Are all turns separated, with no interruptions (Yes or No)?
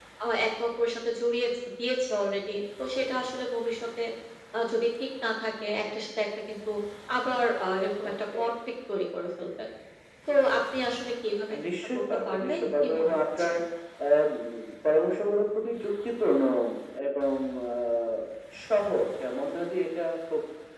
No